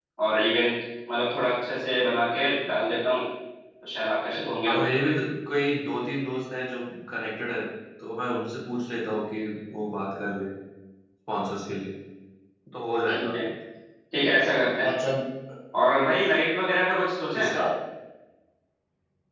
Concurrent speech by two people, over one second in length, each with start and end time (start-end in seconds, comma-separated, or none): none